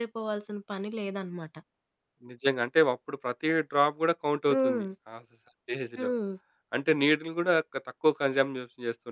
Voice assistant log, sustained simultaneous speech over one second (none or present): none